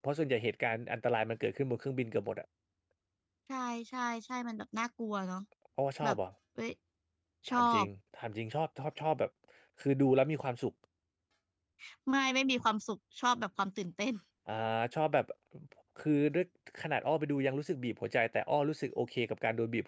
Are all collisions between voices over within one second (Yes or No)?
Yes